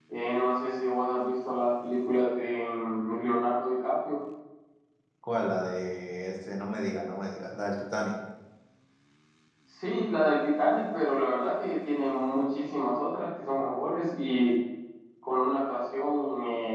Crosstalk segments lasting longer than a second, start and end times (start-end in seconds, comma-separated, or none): none